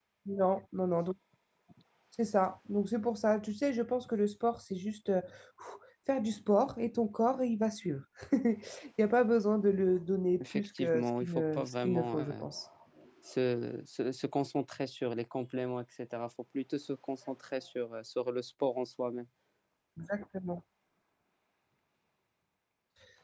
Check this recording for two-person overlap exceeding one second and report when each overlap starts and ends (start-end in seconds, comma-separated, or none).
10.4-12.4